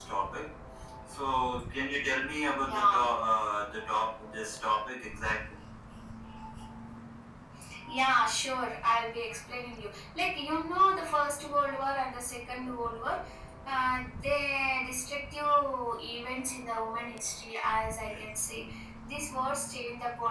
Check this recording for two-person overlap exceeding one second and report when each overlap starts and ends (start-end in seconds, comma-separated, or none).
none